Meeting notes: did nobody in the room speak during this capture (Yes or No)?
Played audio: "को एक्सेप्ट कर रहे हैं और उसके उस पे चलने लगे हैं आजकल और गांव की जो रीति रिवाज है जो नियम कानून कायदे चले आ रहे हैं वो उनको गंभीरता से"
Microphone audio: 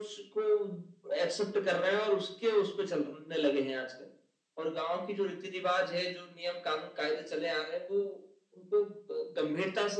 Yes